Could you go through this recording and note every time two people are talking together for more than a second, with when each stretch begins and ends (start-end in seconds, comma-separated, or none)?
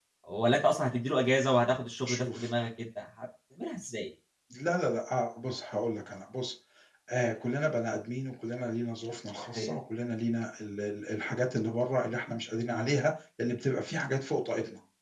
none